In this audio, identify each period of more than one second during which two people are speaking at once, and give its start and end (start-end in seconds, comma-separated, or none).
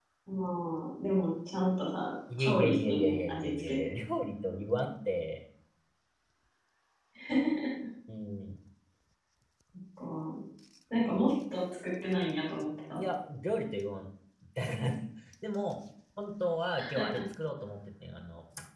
2.4-3.8